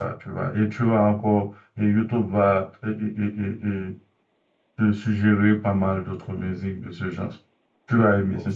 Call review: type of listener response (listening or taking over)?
taking over